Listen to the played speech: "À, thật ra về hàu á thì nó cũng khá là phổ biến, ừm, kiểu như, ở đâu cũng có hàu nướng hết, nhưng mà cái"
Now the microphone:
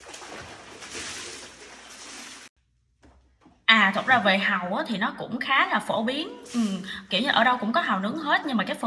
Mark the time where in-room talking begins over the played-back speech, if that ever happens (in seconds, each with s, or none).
none